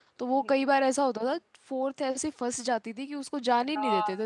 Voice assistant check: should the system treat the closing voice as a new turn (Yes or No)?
Yes